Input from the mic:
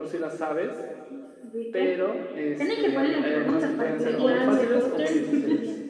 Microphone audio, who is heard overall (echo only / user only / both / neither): both